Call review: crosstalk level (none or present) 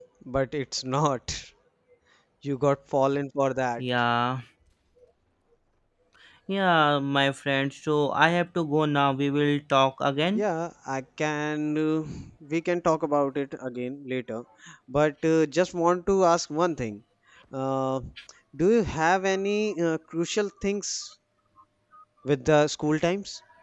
none